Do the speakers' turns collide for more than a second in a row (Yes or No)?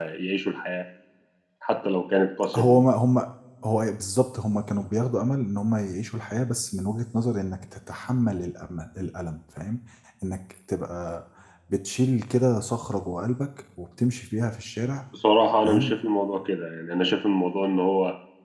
No